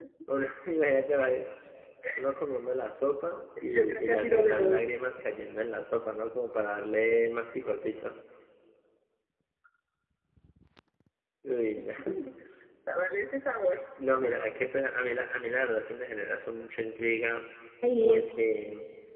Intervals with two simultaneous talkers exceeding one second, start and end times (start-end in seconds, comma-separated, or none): 3.6-4.8